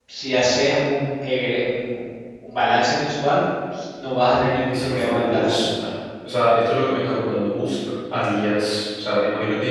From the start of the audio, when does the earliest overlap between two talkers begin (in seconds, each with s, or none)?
4.4 s